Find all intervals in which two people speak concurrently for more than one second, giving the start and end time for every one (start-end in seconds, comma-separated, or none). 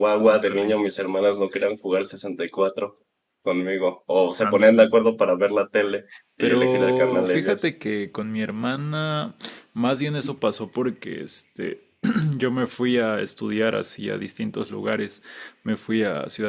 6.4-7.6